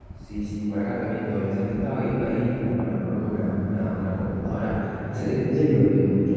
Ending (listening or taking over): listening